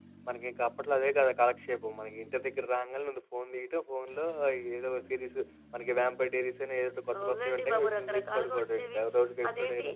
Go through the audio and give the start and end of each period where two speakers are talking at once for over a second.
7.2-9.0

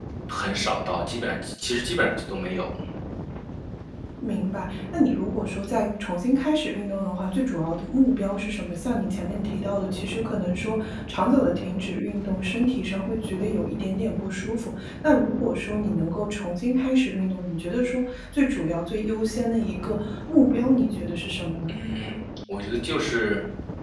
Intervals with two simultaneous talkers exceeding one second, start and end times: none

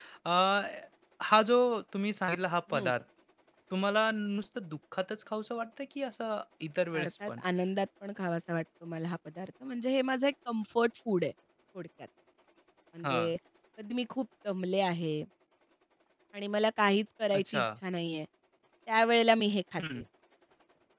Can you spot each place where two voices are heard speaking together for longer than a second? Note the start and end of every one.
none

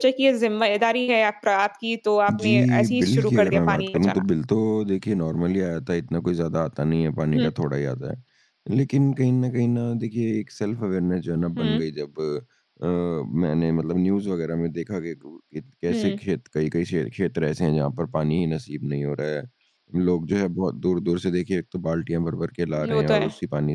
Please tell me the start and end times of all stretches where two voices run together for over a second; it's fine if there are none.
2.3-4.2

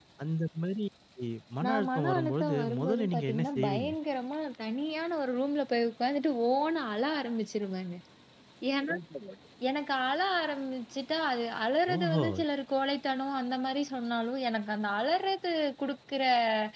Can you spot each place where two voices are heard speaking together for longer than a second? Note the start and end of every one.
1.6-3.9

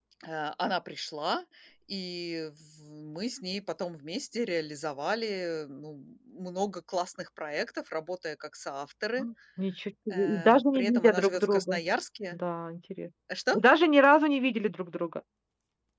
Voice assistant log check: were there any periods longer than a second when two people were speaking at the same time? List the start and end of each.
10.1-11.8

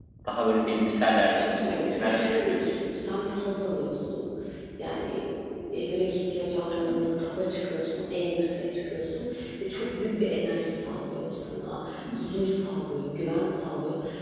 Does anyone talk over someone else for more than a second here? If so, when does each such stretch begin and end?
1.3-2.7

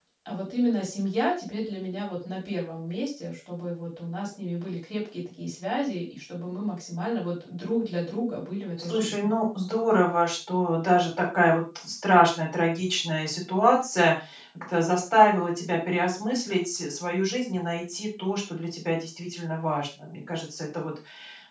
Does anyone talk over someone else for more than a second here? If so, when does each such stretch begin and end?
none

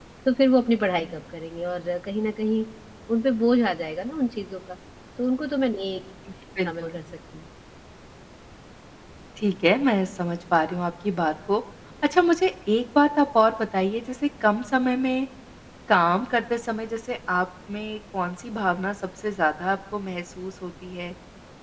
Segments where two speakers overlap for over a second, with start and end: none

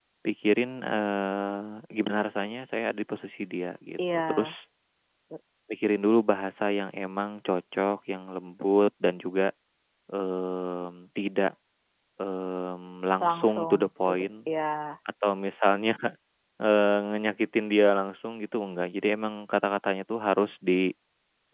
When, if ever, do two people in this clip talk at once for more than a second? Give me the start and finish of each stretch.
13.2-14.5

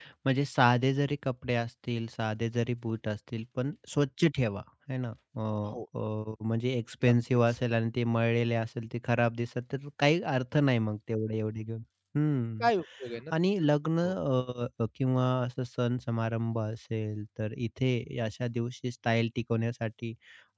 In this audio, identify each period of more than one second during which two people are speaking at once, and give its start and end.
none

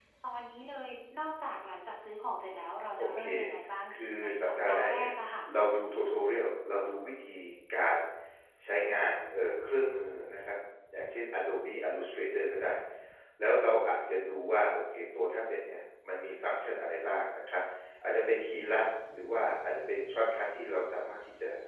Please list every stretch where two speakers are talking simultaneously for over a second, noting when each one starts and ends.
3.9-5.1

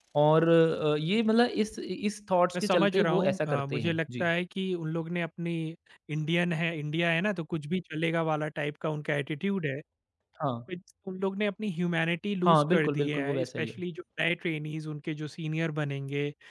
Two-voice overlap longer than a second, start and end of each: 2.5-4.3, 12.4-13.8

